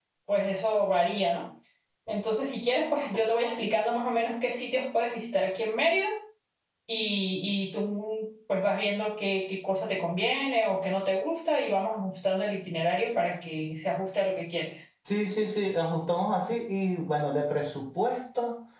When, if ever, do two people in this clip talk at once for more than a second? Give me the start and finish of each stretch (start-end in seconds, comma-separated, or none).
none